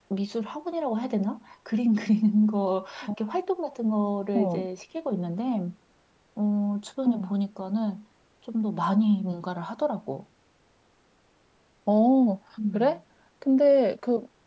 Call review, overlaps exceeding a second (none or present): none